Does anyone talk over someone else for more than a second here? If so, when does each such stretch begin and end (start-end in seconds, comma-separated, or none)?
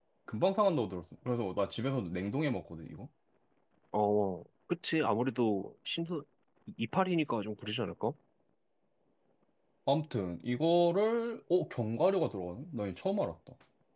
none